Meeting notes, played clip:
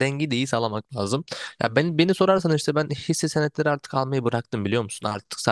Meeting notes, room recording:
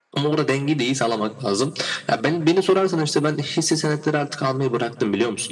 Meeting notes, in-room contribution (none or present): none